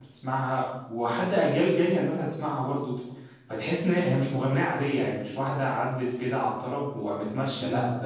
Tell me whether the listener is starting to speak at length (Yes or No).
No